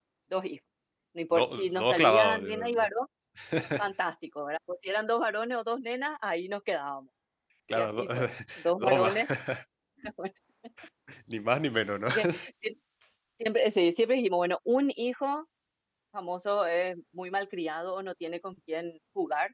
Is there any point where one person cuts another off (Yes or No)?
Yes